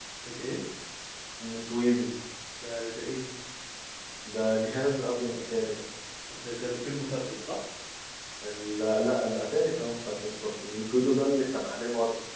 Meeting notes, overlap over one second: none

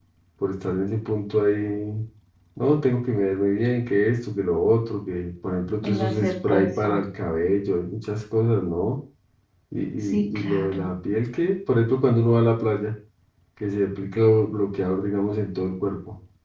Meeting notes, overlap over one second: present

